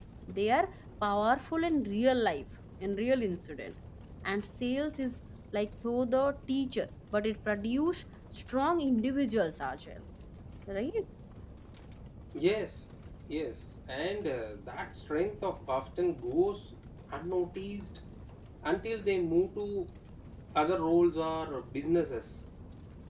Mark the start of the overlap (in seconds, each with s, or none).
none